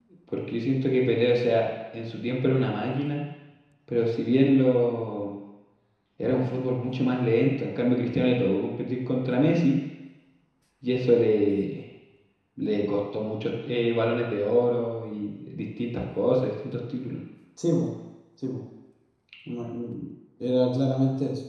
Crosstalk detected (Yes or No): No